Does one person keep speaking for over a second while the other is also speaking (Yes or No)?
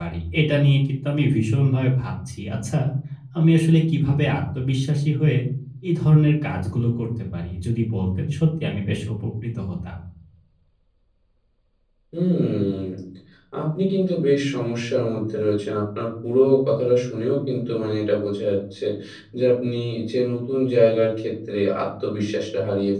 No